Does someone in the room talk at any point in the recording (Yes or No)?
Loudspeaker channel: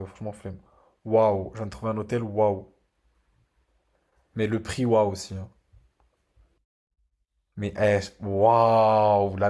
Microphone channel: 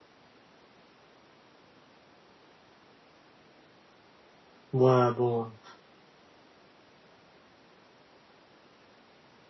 Yes